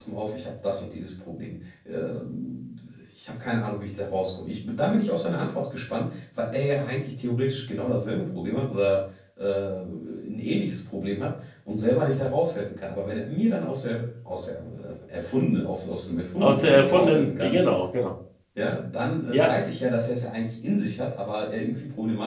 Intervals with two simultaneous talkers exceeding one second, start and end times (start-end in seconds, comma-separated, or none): 16.4-17.6